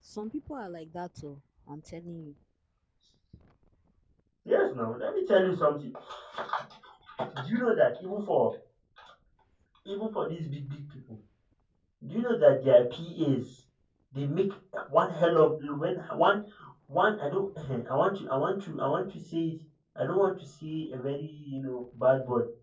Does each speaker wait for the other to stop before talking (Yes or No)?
Yes